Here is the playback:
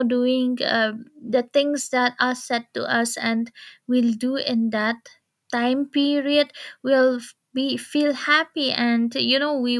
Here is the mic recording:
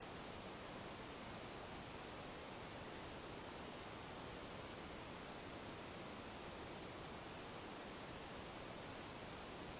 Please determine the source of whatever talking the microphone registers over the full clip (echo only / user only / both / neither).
neither